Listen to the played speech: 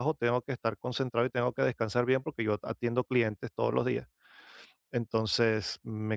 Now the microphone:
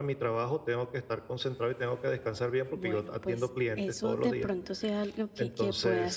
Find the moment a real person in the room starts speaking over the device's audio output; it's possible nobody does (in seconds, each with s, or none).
2.8 s